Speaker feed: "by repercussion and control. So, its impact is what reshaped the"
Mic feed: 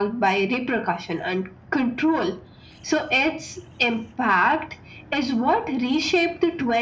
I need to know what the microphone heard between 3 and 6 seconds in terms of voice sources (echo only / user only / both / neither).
echo only